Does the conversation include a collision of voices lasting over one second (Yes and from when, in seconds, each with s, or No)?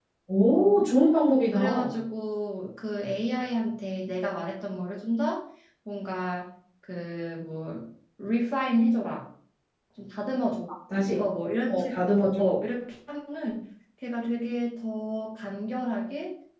No